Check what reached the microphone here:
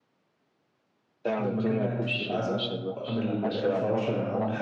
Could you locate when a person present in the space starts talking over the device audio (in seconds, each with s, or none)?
1.4 s